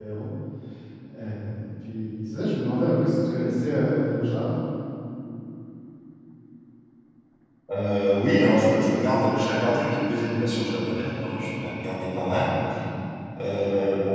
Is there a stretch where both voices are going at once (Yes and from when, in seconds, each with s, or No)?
No